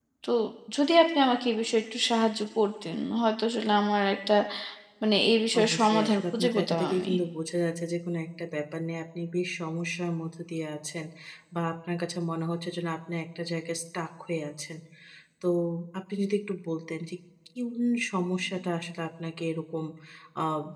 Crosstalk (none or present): present